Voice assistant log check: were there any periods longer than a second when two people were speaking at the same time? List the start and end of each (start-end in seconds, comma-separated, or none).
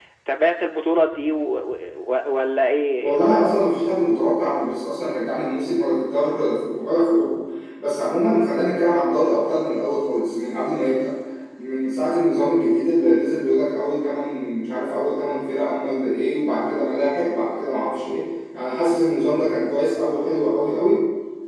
none